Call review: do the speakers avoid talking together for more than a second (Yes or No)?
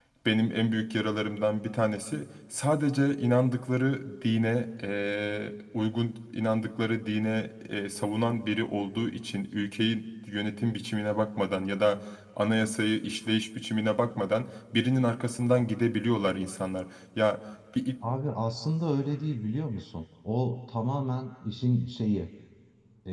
Yes